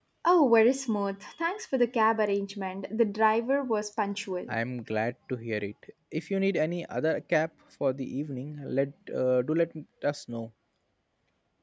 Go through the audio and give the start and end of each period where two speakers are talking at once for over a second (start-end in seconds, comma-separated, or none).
none